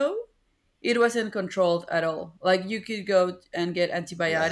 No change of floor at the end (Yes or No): Yes